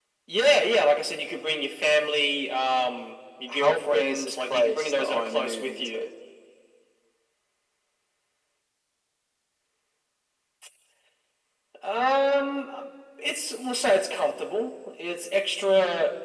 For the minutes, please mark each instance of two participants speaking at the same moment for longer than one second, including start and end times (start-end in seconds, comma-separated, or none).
3.5-6.0